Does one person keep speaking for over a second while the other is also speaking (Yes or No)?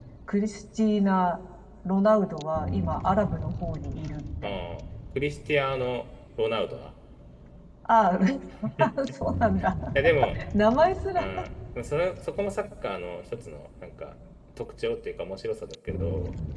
No